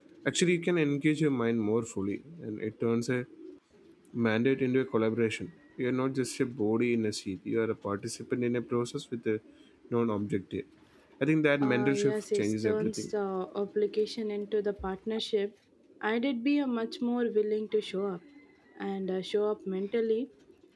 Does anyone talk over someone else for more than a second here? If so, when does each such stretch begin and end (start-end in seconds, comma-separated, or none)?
11.6-13.0